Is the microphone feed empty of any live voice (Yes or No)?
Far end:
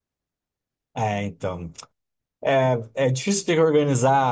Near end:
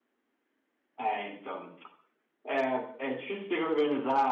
Yes